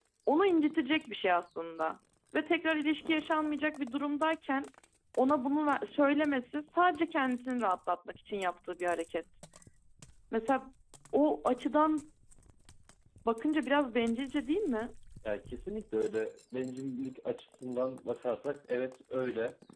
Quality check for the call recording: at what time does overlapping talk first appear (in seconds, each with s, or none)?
none